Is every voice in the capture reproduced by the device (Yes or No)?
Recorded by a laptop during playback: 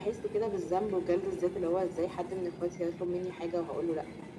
Yes